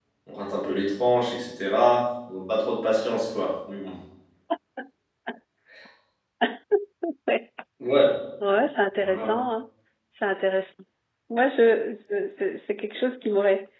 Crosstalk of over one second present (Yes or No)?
No